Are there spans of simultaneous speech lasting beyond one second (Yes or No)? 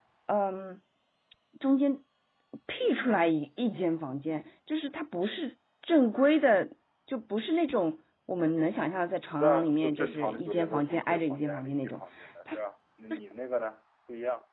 Yes